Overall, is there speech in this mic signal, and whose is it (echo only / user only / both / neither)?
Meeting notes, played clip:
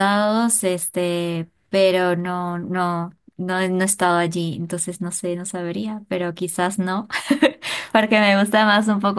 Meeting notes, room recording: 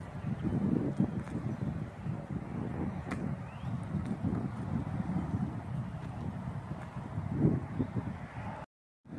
neither